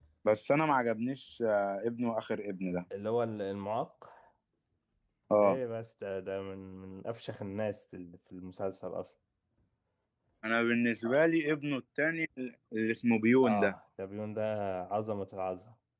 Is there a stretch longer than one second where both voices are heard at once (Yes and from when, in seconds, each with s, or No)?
No